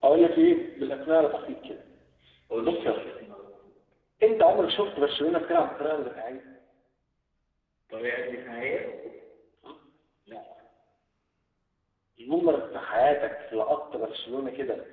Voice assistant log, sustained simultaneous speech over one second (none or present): none